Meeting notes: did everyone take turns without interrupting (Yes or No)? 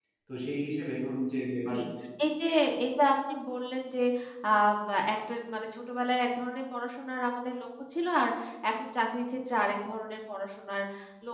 Yes